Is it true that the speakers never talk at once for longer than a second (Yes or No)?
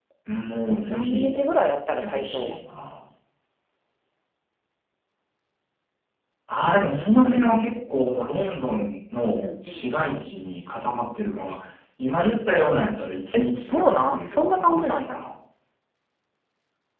No